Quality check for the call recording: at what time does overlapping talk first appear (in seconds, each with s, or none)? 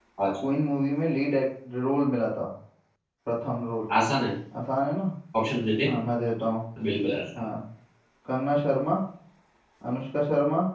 none